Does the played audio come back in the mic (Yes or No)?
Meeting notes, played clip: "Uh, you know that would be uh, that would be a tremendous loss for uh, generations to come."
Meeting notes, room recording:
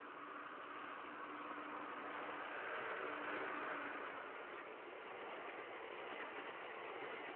No